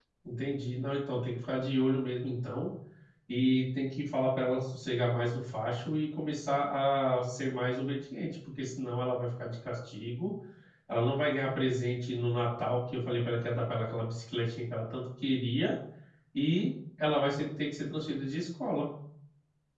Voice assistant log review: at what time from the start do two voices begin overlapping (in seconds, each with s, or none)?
none